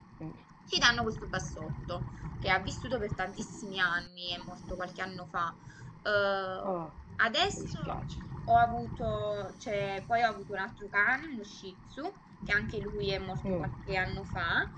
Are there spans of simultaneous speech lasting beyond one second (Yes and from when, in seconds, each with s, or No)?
No